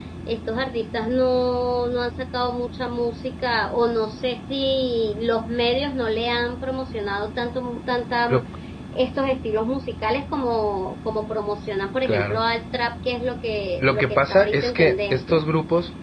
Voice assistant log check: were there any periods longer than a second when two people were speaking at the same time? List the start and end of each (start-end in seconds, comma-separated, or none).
13.8-15.4